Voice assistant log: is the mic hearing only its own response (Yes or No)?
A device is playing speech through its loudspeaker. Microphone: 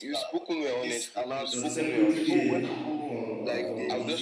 No